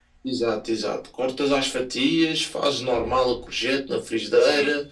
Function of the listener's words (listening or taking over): listening